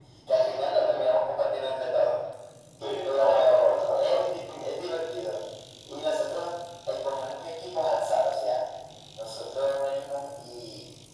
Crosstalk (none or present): present